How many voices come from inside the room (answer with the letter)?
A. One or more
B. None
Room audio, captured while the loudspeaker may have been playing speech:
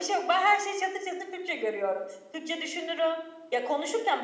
B